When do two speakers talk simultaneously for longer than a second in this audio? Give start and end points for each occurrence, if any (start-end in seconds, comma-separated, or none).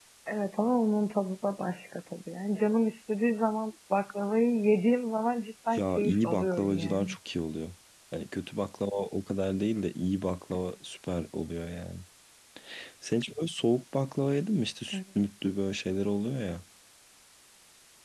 5.8-7.1